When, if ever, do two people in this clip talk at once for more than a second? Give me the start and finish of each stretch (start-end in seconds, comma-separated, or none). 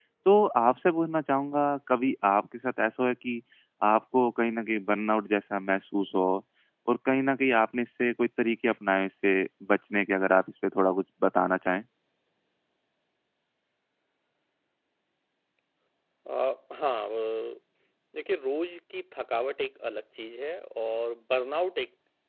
none